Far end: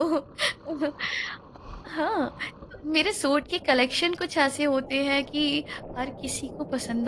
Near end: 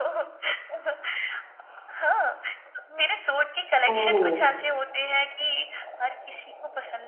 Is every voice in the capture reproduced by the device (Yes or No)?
No